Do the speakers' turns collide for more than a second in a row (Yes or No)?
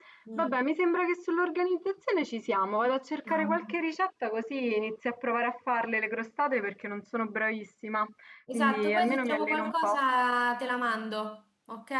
Yes